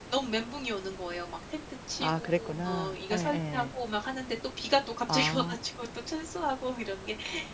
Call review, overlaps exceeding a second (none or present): present